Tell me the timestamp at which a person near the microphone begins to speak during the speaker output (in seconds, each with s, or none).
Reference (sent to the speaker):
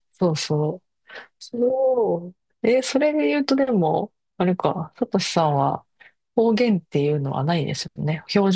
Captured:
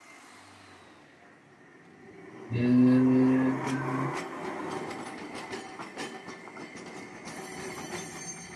2.5 s